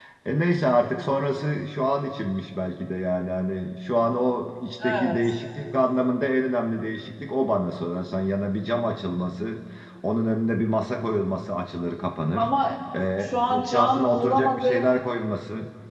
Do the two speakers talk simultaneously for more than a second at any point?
Yes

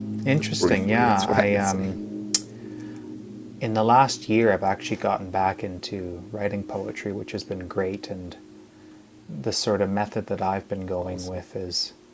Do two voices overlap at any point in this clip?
Yes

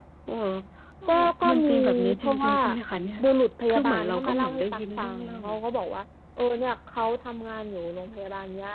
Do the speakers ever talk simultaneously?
Yes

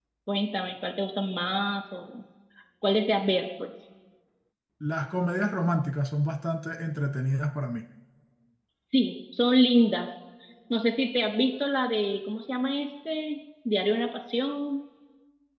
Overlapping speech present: No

